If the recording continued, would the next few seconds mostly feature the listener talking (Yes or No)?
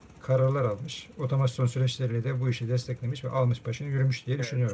Yes